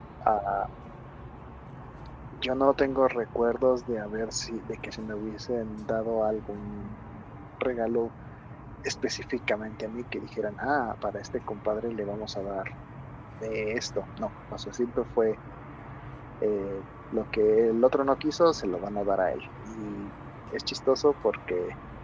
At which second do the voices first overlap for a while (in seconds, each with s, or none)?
none